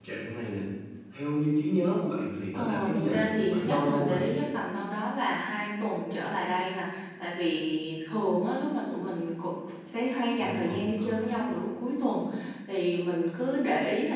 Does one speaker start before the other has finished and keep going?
Yes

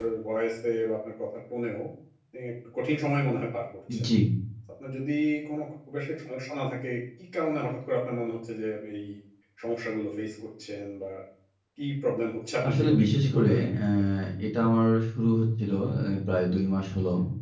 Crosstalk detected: Yes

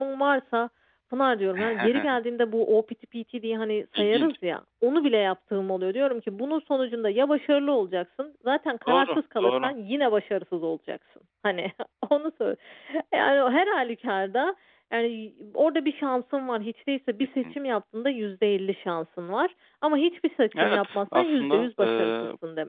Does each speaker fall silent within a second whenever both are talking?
No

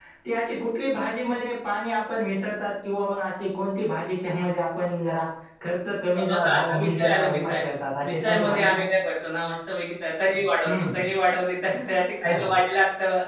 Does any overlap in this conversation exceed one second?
Yes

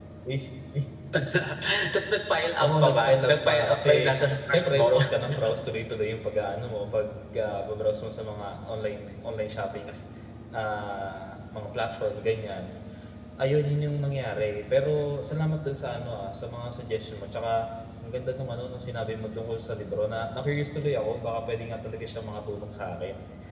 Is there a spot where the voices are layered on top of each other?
Yes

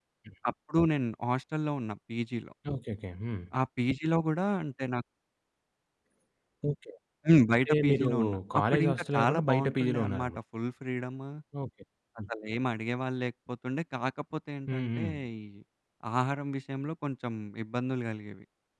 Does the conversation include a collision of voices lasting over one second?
Yes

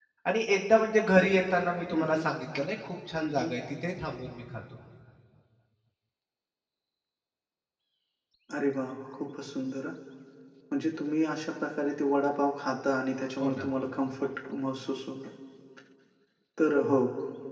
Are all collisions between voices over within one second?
Yes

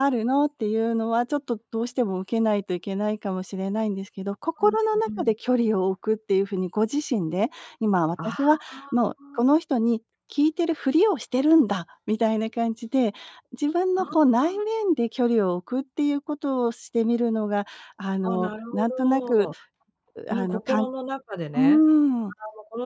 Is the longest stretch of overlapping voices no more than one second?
No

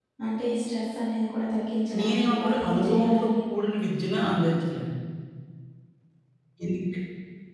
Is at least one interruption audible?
Yes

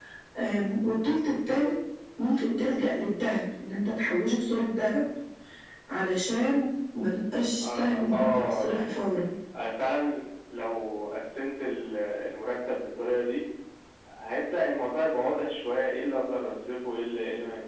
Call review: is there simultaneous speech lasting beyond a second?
Yes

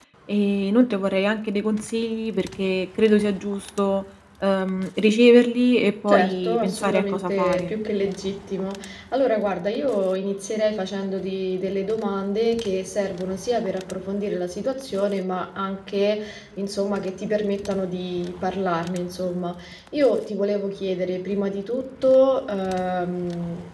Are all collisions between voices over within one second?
No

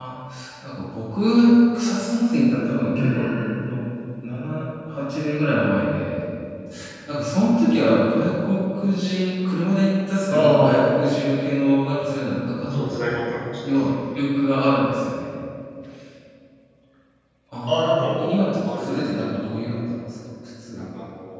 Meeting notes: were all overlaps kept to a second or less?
No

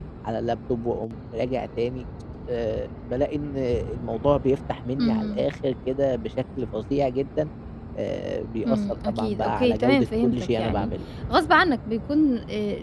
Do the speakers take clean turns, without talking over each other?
No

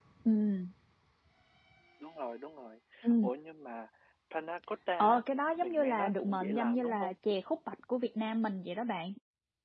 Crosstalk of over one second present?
Yes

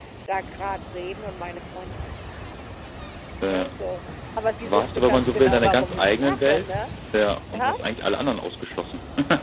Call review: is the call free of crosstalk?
No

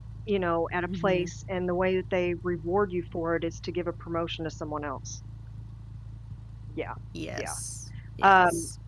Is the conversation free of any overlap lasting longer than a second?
Yes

